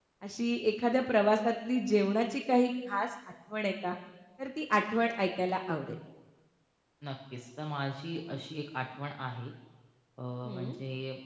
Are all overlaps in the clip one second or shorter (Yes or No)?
Yes